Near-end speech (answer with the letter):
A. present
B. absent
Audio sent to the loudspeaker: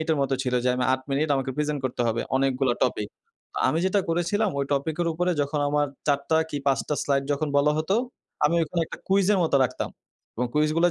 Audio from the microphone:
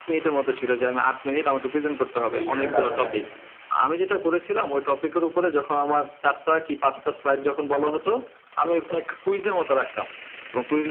A